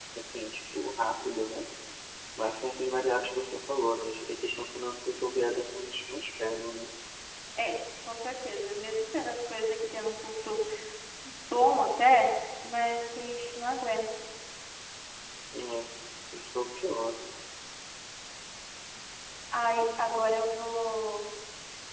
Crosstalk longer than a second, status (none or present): none